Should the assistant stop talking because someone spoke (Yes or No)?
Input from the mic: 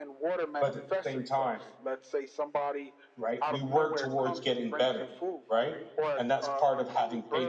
Yes